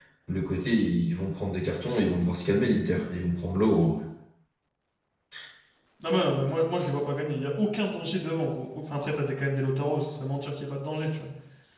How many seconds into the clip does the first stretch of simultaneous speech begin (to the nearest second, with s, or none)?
none